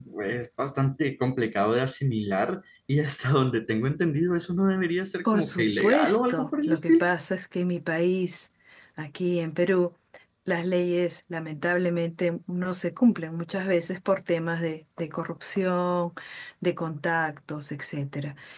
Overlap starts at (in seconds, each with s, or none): 5.2 s